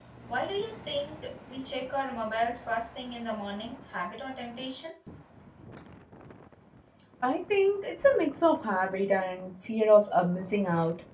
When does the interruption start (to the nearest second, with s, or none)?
none